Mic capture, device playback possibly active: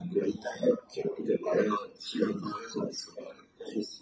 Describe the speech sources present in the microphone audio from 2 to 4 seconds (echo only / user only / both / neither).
echo only